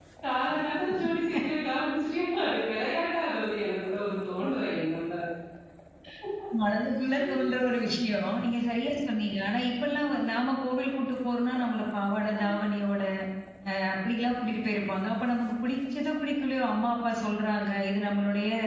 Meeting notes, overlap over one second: none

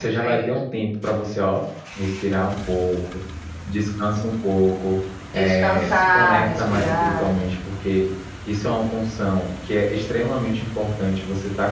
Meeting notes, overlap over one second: present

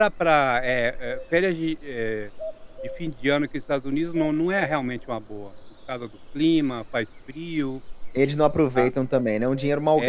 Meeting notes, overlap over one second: none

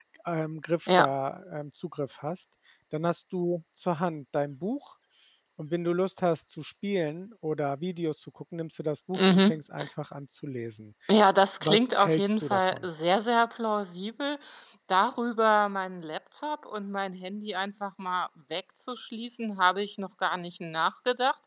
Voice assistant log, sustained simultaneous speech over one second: present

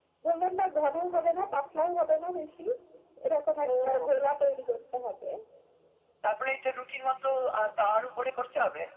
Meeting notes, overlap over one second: none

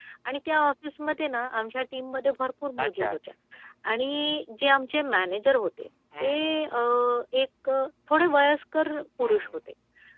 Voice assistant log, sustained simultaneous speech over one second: none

